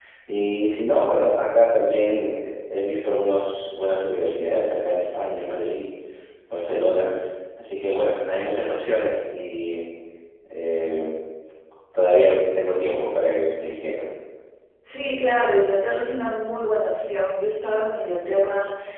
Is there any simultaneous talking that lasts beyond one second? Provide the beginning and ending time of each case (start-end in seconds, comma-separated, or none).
none